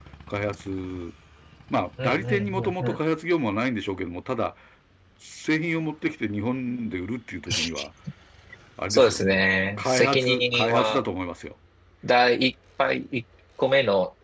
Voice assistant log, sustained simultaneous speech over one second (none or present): present